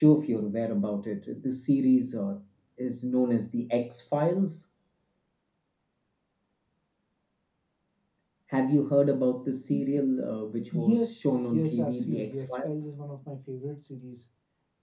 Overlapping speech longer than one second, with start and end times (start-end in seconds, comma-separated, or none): 10.7-12.7